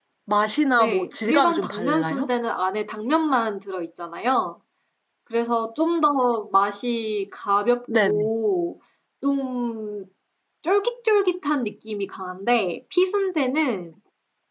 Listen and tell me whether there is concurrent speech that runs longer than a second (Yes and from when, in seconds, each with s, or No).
Yes, from 0.8 s